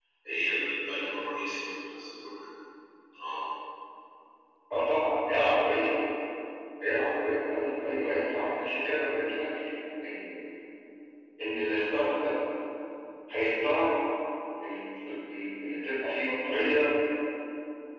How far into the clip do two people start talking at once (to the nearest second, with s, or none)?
none